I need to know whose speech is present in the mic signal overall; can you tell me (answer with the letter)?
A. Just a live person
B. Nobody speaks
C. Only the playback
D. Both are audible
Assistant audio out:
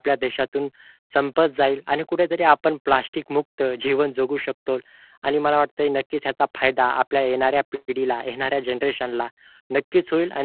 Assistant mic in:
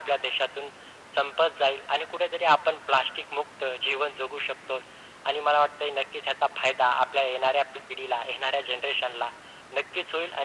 C